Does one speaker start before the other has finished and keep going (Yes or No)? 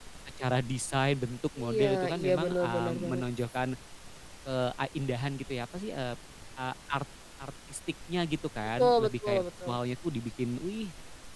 Yes